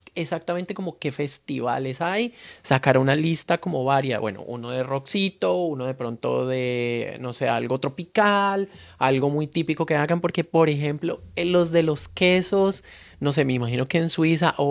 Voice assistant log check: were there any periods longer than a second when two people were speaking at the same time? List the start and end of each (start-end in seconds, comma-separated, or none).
none